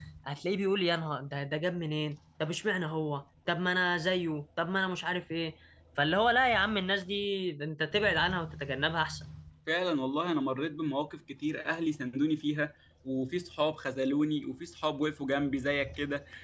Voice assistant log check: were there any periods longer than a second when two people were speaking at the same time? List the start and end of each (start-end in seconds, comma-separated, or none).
none